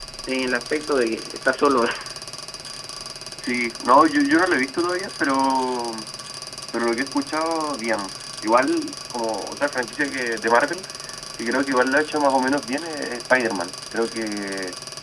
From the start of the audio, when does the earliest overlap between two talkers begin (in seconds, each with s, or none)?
none